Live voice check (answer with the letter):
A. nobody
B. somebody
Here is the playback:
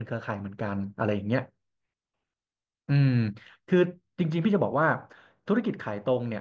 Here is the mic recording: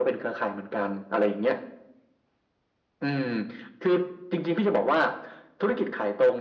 A